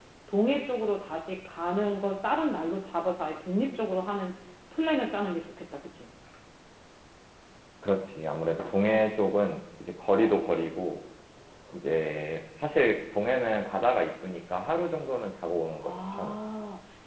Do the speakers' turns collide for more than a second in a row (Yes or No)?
No